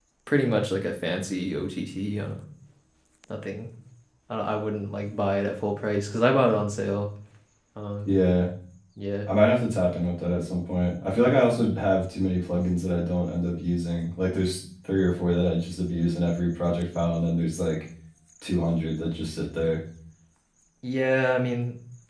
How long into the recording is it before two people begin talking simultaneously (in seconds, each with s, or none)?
none